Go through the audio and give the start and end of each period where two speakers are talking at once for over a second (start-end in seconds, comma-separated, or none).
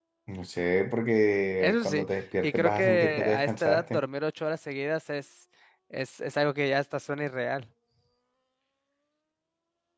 2.4-4.0